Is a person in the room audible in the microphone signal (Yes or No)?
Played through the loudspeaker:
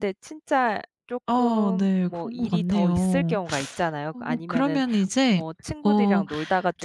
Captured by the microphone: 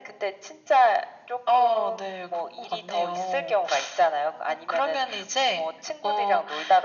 No